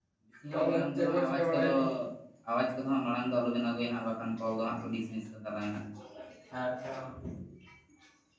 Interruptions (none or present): present